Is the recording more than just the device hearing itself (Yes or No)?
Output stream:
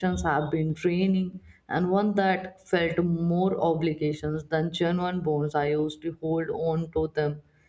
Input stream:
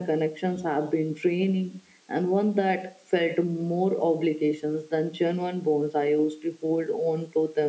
No